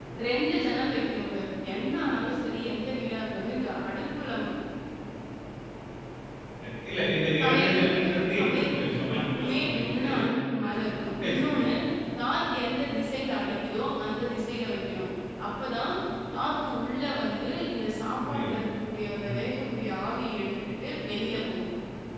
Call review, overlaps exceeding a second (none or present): present